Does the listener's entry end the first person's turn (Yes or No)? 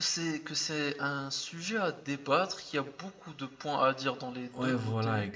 Yes